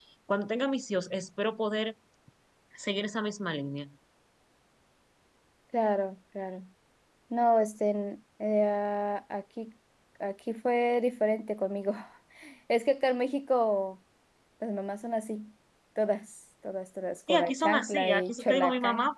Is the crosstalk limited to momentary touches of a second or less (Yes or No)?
No